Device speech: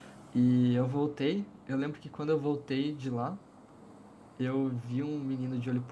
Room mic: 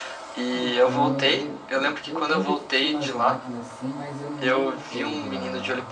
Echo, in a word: present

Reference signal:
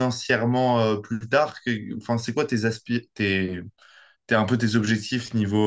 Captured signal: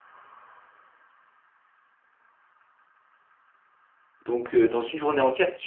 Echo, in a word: none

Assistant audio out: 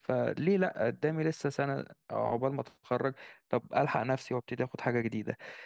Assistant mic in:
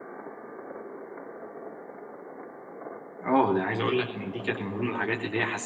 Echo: none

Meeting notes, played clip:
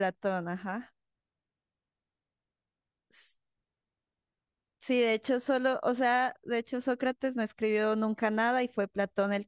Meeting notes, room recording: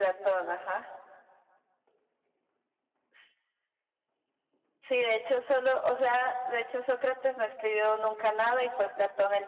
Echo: present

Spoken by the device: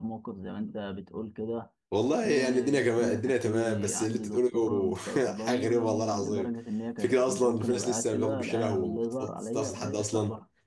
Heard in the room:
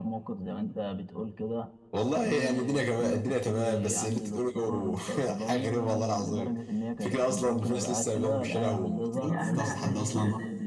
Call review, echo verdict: present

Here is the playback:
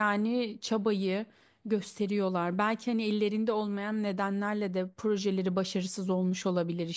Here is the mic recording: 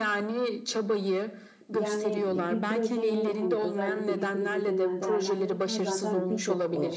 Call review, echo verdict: present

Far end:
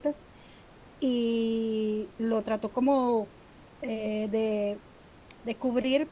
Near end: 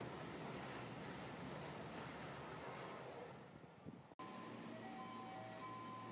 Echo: none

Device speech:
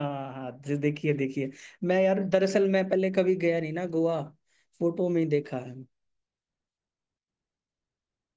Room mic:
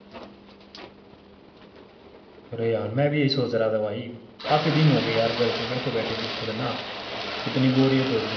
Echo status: none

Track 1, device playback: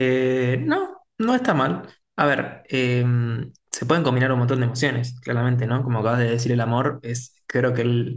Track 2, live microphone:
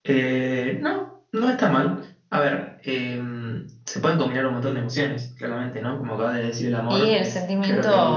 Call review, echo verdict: present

